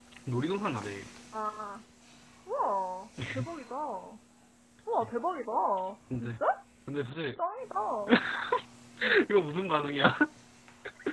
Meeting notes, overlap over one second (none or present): none